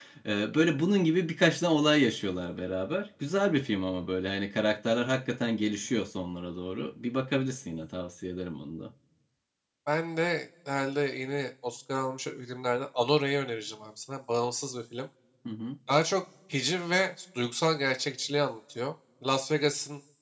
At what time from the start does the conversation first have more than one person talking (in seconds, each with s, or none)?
none